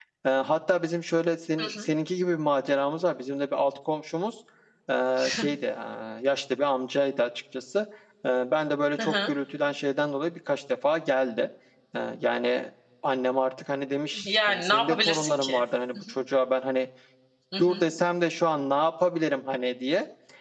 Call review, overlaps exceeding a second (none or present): present